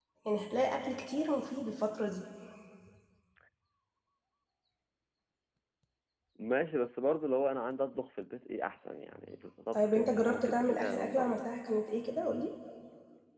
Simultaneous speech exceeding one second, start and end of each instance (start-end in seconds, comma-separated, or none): 9.7-11.5